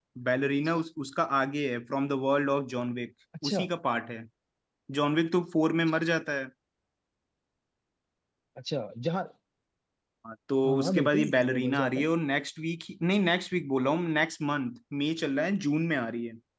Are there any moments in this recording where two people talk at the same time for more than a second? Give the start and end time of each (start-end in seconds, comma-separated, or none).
10.6-12.1